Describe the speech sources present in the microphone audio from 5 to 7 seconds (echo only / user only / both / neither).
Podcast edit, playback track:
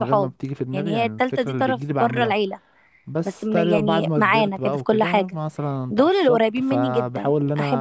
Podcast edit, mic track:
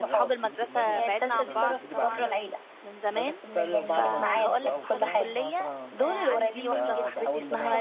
both